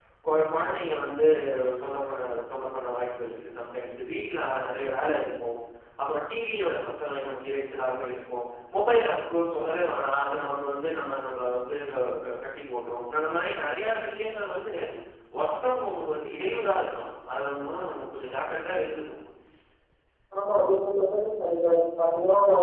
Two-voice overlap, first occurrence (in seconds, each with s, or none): none